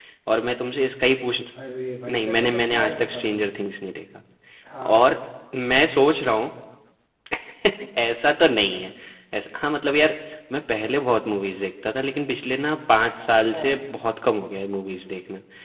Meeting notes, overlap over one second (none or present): present